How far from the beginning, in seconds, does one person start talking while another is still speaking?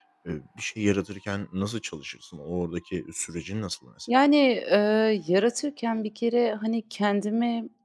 none

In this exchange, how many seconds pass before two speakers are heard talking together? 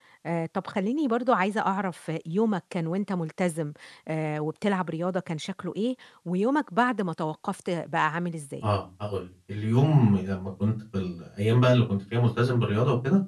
none

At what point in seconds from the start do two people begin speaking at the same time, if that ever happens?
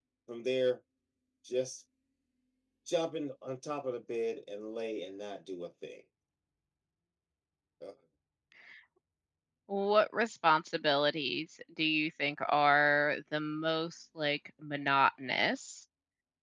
none

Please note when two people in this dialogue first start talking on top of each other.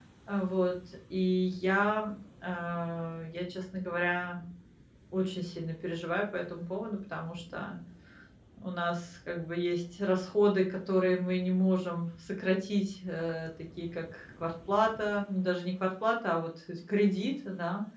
none

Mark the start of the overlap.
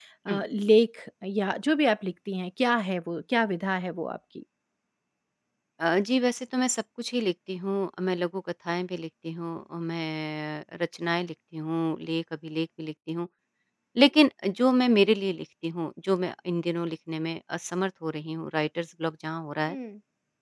none

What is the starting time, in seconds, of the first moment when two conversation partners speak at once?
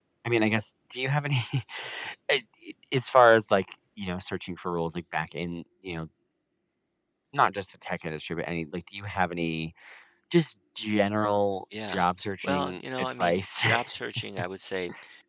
11.7 s

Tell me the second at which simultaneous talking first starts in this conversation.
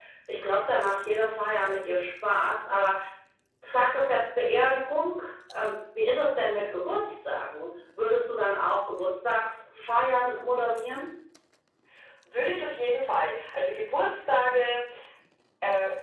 none

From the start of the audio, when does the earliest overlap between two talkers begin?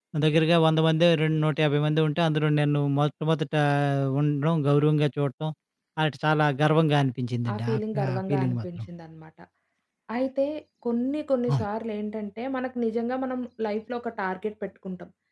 7.5 s

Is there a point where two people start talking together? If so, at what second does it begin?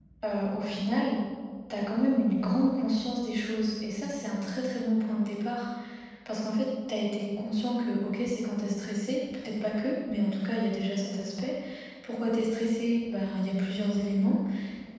none

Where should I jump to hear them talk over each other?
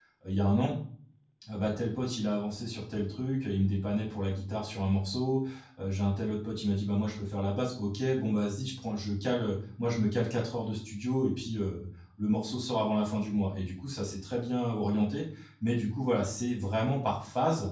none

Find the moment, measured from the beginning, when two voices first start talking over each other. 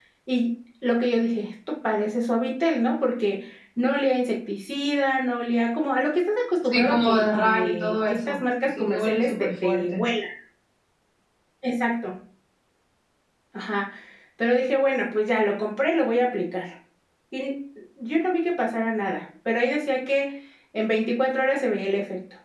6.7 s

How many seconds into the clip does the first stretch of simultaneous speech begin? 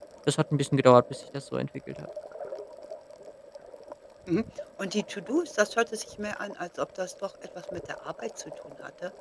none

